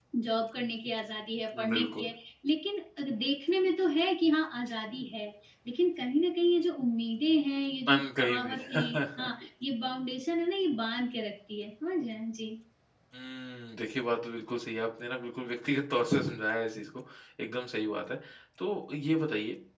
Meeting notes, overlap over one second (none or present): present